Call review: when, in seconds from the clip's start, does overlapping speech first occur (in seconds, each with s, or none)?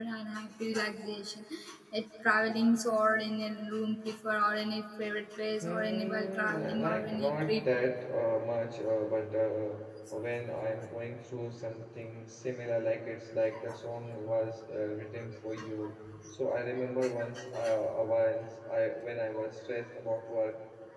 5.6 s